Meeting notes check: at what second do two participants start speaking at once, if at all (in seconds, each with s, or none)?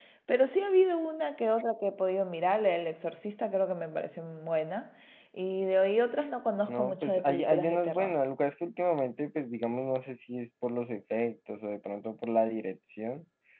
6.7 s